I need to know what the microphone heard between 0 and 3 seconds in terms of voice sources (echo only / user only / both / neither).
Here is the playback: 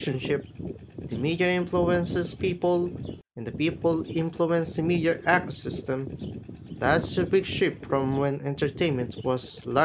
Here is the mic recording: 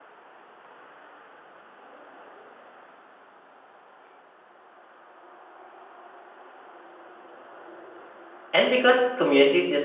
neither